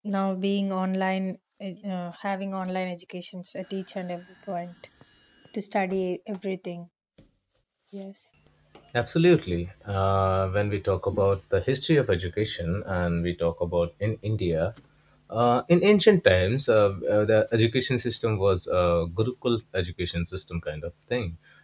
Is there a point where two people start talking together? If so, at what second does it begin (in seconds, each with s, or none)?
none